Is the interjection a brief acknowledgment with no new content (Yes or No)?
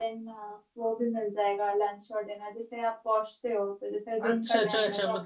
No